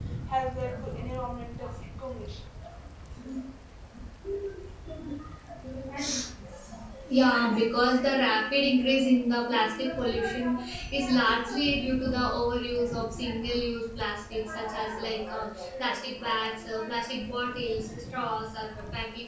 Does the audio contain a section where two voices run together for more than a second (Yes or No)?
No